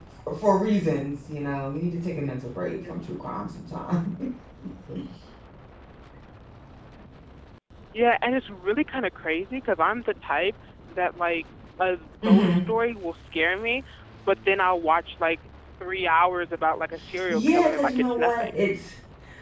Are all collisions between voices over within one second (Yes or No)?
No